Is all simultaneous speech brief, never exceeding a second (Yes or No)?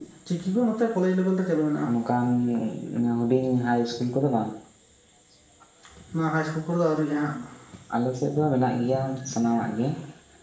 Yes